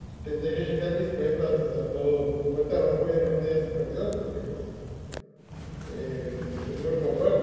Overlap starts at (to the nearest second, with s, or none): none